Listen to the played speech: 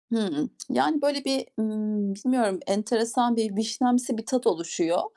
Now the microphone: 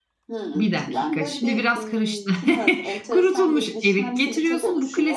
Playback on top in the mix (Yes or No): No